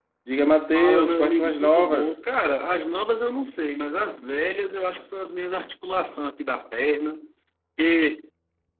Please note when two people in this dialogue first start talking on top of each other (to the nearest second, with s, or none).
1 s